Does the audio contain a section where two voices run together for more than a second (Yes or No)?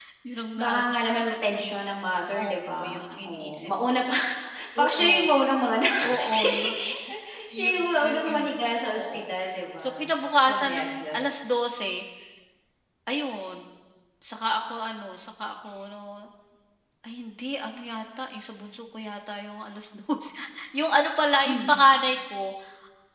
Yes